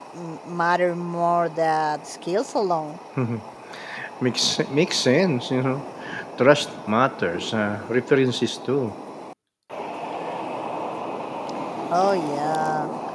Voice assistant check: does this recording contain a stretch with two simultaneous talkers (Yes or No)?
No